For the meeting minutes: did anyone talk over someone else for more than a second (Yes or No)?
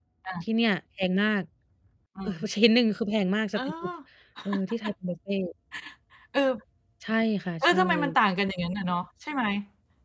No